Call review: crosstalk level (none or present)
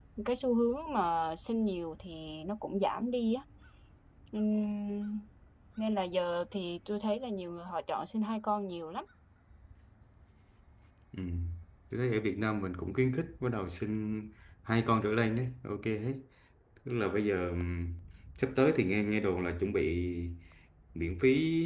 none